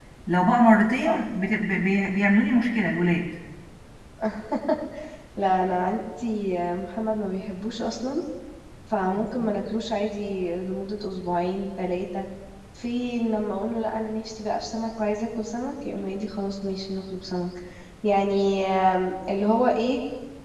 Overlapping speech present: No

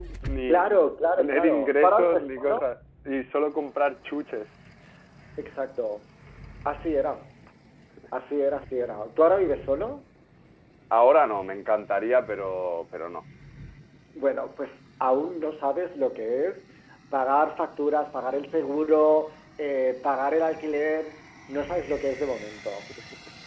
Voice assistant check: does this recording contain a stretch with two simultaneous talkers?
Yes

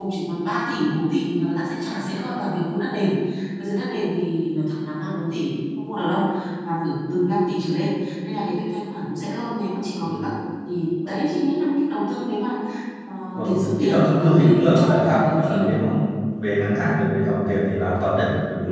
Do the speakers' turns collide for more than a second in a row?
Yes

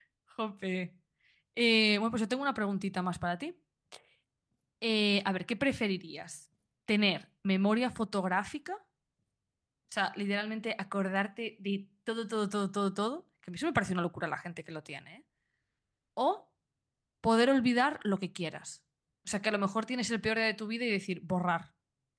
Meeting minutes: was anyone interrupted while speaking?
No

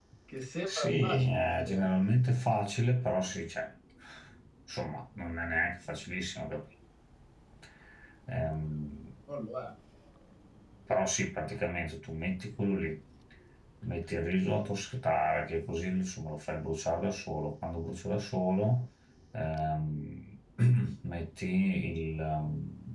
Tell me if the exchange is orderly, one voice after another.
No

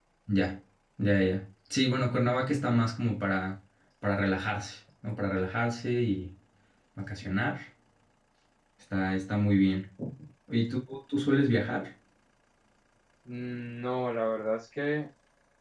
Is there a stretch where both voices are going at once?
No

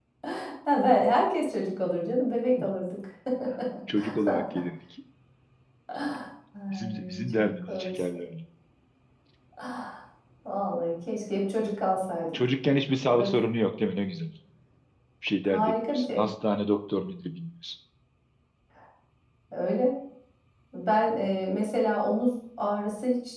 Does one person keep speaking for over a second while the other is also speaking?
Yes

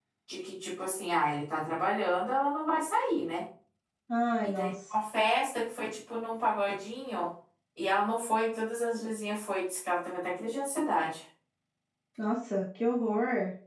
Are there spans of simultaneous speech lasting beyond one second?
No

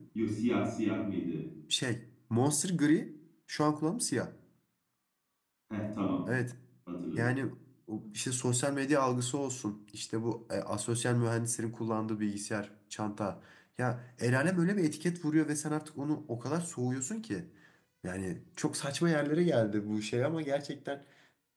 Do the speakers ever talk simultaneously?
No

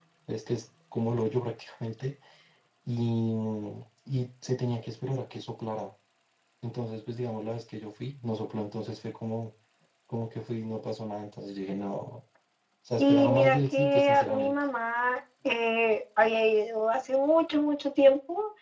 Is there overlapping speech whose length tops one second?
Yes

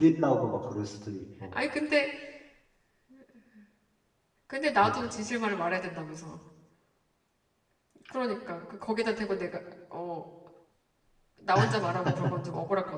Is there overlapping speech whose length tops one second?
No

